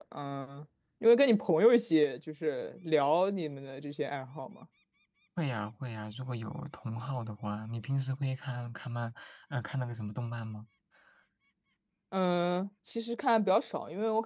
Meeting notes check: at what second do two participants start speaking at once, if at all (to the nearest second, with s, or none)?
none